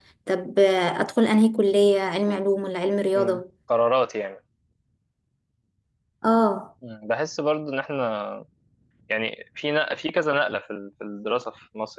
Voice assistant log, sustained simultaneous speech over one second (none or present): none